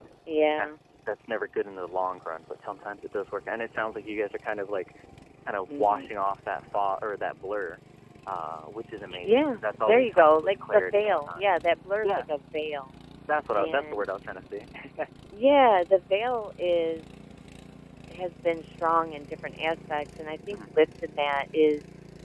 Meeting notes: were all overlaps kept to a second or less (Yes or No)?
No